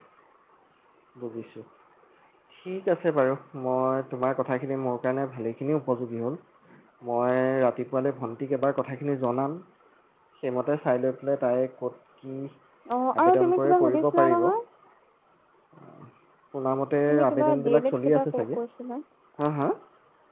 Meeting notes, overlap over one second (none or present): present